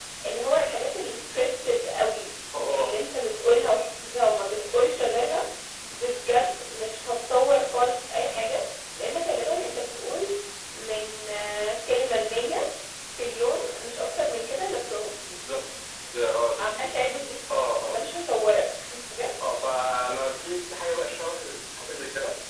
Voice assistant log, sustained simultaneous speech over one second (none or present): none